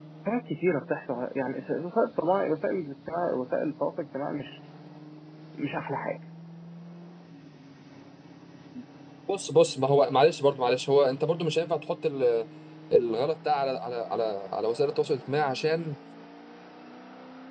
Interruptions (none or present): none